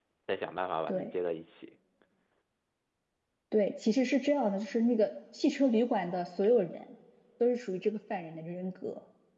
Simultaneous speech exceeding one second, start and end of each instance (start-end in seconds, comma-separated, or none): none